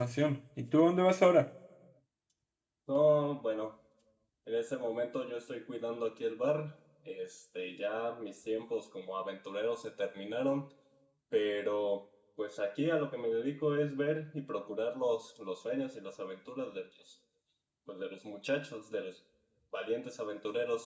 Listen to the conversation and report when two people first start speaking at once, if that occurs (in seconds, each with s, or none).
none